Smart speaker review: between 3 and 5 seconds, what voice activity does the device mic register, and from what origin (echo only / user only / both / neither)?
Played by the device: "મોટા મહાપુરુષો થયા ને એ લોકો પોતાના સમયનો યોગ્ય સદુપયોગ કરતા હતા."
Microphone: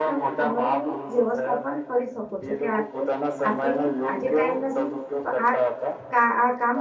both